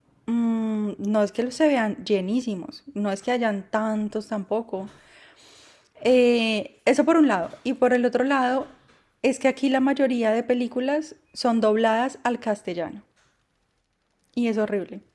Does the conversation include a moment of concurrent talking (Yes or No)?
No